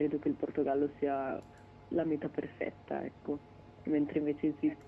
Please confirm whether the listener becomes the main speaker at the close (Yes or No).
No